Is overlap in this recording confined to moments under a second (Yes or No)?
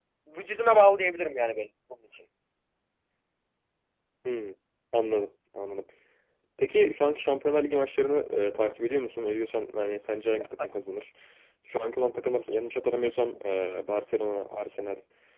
Yes